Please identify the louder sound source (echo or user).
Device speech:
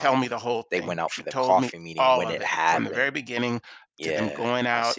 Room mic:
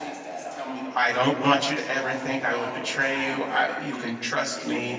user